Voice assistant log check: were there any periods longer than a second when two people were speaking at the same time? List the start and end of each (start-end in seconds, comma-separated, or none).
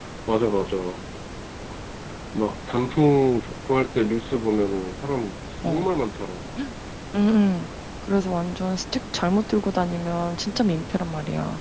none